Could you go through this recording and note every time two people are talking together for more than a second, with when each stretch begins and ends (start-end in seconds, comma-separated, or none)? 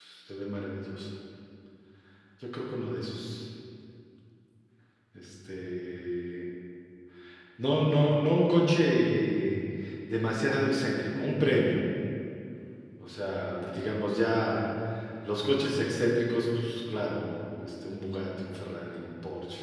none